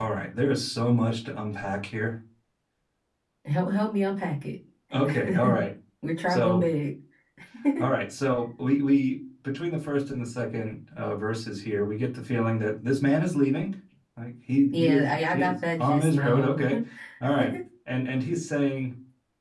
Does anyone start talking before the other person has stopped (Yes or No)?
Yes